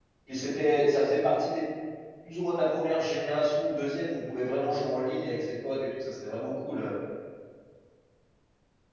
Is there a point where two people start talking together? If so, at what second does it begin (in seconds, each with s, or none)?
none